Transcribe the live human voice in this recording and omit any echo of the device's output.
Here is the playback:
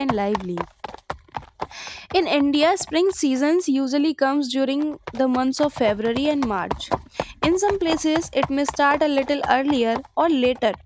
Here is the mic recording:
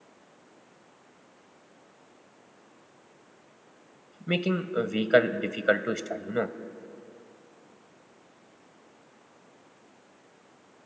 making a vehicle difficult to start you know

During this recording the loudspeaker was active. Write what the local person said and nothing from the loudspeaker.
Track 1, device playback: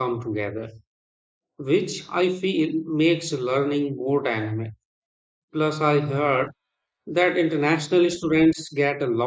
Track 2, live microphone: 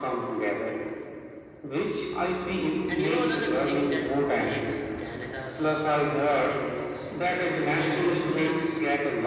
And you know, another thing that makes Canada so appealing is their healthcare system.

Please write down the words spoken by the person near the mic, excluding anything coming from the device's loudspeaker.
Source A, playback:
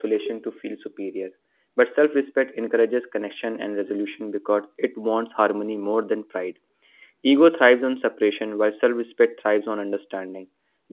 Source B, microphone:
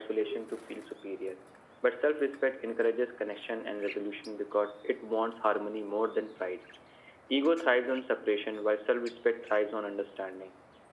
none

